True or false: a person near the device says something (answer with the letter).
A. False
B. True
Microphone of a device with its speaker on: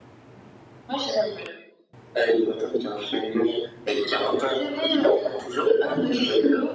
A